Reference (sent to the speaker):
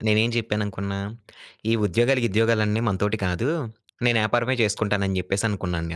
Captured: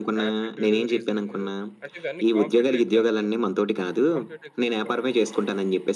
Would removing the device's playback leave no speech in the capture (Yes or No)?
No